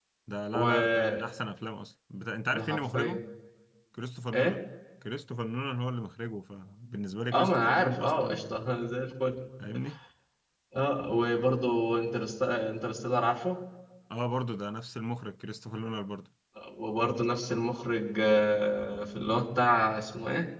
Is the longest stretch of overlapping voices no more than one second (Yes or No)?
No